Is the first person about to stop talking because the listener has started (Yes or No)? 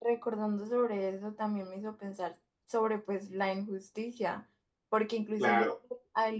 No